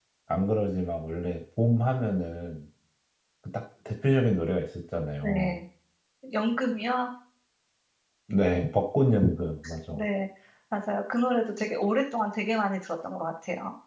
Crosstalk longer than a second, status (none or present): none